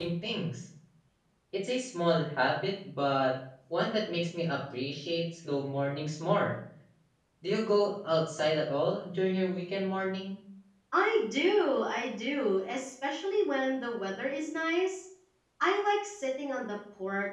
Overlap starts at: none

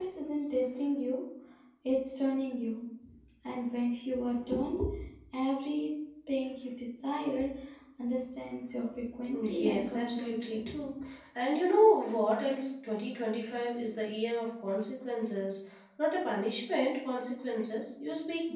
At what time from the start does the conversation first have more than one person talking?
9.3 s

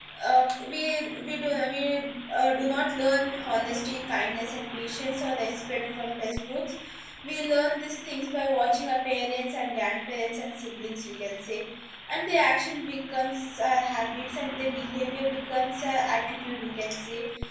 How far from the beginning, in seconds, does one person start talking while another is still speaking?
none

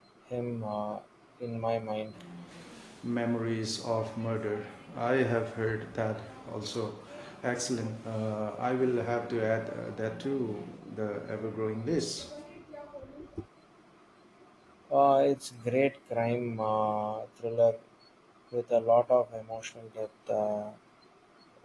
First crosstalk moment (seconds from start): none

